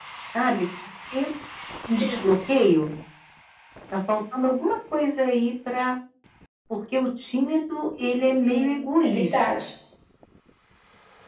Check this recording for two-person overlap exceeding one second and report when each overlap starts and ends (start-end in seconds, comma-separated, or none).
8.2-9.7